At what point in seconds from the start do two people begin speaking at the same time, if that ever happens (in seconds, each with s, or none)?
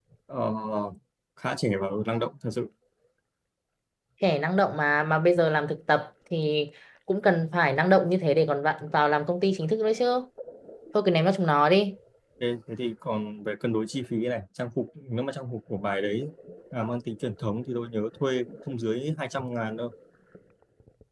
none